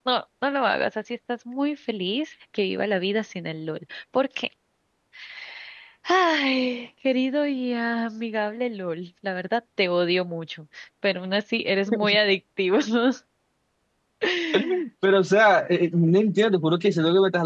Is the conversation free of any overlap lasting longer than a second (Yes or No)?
Yes